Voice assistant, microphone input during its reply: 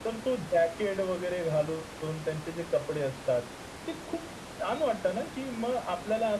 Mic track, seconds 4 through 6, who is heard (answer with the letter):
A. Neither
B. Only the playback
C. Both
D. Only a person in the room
B